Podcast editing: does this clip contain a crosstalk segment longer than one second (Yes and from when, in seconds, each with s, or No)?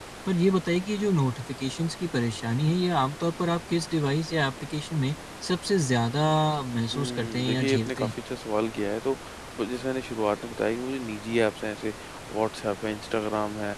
Yes, from 6.9 s